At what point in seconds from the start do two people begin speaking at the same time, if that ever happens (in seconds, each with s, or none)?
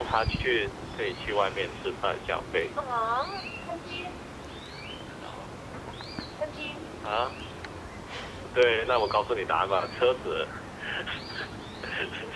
none